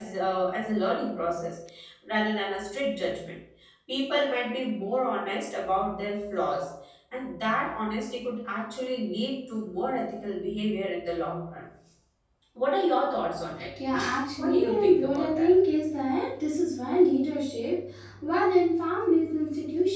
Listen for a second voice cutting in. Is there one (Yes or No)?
Yes